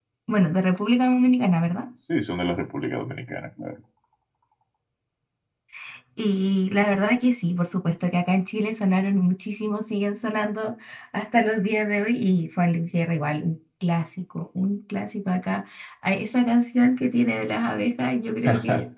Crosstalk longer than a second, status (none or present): none